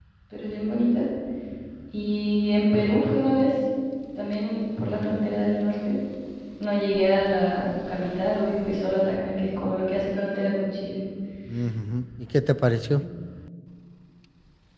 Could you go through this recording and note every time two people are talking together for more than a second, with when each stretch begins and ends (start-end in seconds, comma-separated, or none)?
none